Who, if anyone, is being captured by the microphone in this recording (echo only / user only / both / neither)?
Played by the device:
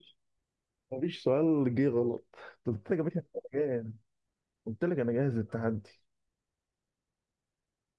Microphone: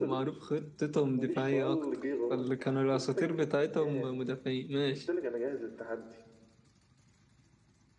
both